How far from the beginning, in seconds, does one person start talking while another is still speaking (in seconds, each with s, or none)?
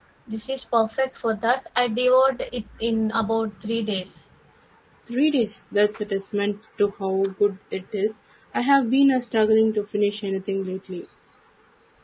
none